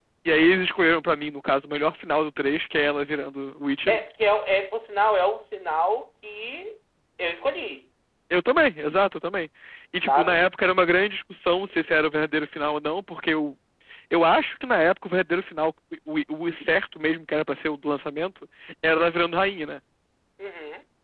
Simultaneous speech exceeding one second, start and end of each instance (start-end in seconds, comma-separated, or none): none